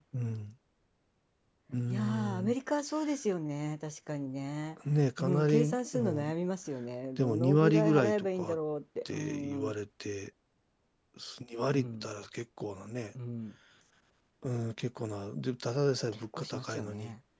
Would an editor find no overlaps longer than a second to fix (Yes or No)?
No